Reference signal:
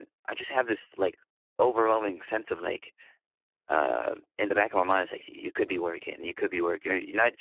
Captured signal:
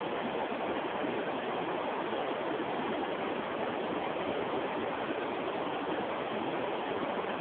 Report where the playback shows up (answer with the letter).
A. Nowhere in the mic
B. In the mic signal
A